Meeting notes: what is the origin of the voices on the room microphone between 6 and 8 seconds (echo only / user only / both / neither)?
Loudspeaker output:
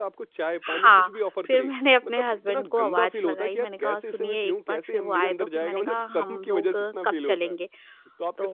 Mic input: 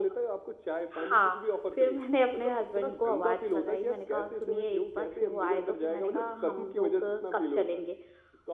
echo only